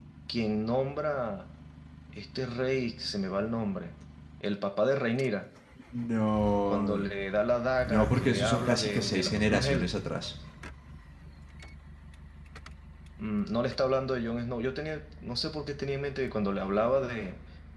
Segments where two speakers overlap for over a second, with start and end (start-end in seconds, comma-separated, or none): 7.9-9.9